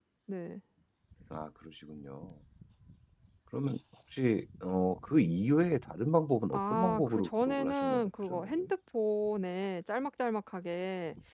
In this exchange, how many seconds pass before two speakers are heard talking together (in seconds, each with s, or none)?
6.5 s